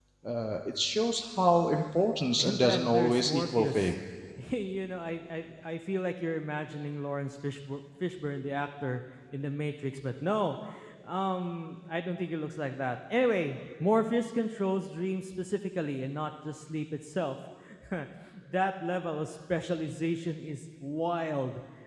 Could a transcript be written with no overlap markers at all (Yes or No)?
No